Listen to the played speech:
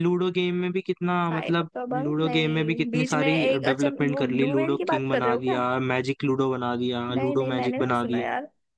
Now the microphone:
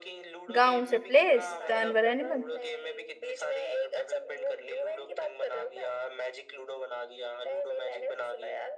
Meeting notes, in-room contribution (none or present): present